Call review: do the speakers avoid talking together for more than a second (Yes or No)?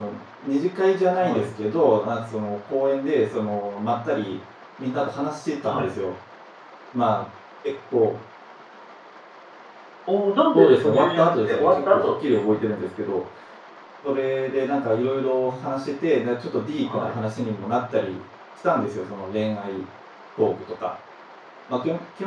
No